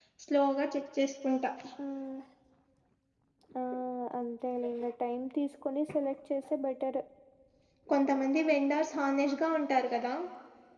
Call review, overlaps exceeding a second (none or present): none